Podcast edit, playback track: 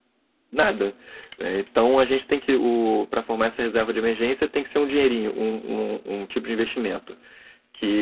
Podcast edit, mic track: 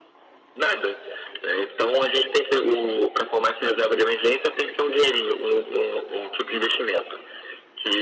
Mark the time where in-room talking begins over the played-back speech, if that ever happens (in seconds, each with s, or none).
none